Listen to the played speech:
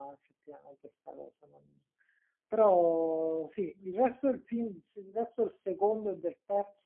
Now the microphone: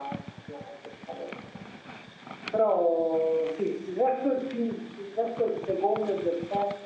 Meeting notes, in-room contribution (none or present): none